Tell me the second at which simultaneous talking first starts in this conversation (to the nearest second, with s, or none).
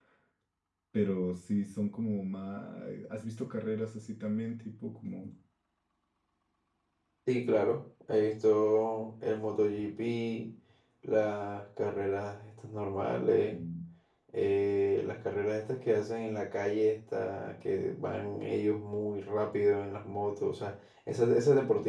none